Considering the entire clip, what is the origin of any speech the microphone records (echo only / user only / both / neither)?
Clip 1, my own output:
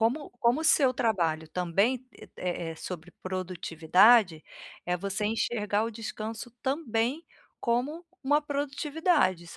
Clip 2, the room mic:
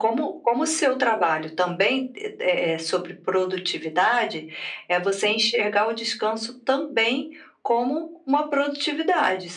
echo only